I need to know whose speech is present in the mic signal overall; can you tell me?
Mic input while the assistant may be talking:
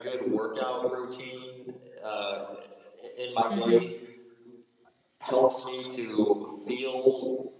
both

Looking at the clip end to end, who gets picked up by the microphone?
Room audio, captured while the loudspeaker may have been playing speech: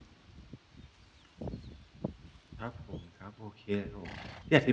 user only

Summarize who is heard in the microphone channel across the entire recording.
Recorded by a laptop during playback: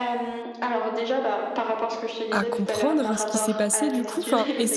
both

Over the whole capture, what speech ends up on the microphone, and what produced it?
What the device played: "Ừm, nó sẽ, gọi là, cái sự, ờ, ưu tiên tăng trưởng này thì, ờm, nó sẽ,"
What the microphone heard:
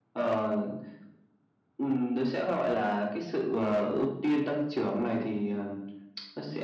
echo only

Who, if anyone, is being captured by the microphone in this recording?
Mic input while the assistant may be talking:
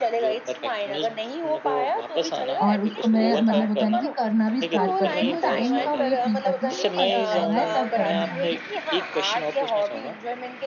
both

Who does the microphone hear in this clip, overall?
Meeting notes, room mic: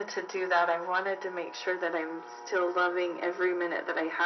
echo only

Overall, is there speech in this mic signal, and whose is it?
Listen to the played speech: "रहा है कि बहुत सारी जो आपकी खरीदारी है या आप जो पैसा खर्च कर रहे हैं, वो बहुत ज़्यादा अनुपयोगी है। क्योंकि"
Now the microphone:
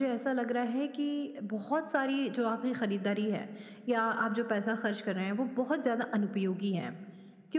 echo only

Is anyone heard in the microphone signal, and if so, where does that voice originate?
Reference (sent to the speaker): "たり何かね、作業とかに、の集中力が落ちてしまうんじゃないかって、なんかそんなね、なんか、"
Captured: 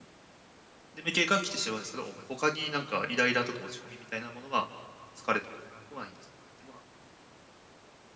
user only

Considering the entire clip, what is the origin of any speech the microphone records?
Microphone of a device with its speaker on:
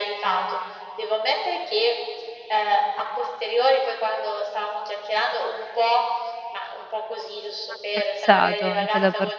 both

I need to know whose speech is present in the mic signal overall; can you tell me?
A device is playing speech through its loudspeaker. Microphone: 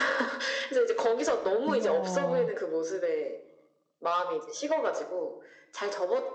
both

